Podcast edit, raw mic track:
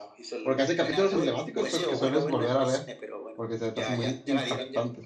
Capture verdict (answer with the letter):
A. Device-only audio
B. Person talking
B